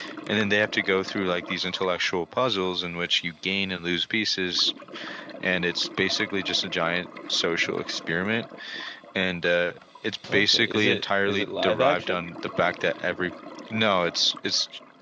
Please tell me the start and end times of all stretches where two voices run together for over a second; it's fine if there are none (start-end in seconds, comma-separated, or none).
10.3-12.2